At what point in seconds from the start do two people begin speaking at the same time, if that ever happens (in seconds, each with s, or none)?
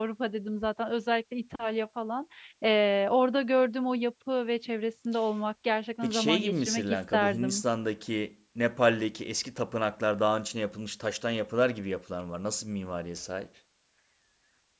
6.0 s